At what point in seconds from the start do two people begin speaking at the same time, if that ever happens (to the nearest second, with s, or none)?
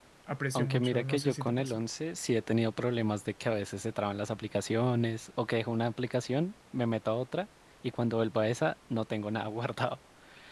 1 s